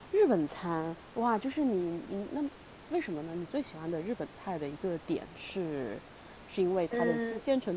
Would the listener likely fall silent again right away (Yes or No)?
Yes